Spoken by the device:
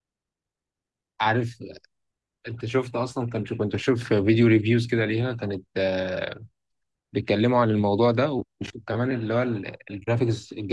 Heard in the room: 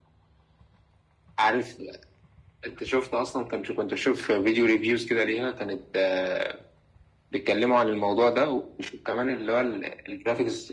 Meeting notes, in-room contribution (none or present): none